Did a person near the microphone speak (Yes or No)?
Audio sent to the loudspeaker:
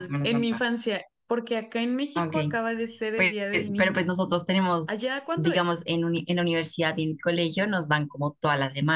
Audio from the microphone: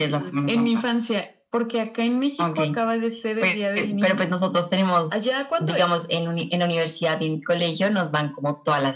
No